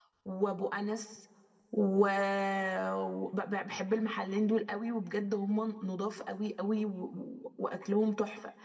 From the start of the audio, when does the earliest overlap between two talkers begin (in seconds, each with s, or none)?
none